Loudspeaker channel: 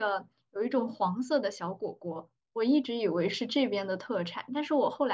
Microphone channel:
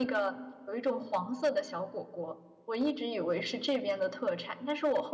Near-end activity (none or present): none